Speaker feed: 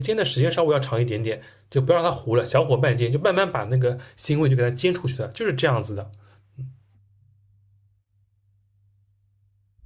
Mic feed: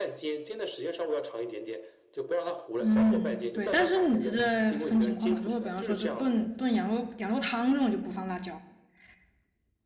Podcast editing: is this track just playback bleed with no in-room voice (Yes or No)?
No